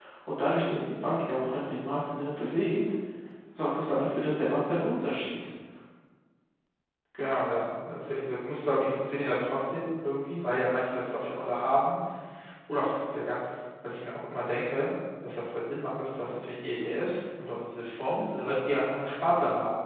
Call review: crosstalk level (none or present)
none